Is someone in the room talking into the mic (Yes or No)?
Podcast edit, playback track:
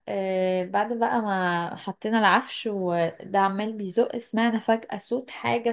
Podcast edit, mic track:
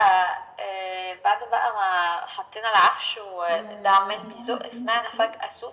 Yes